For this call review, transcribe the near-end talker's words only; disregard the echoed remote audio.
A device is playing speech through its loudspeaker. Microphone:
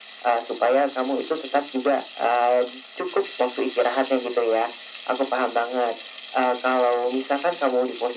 none

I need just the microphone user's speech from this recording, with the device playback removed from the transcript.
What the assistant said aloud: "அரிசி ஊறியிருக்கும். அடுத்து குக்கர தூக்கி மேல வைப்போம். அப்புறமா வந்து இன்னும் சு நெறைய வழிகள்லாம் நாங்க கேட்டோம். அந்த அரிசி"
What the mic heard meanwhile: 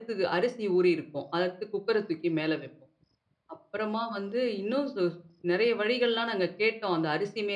none

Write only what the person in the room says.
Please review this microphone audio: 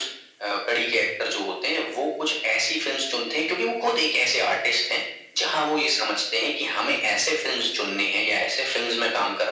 none

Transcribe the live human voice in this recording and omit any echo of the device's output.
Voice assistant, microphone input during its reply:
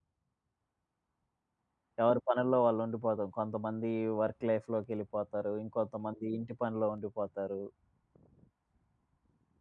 ఎవరి పనుల్లో వాళ్ళు ఉండిపోతాం. కొంతమంది వర్క్ లైఫ్‌లోకెళ్ళిపోతారు. ఇంకొంతమంది ఇంటి పనిలో ఉండిపోతారు.

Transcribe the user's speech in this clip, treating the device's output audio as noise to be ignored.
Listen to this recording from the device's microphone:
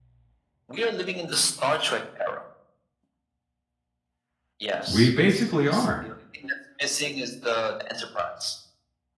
we basically are

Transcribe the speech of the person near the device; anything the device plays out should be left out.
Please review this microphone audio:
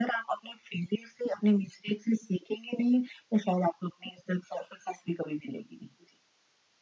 none

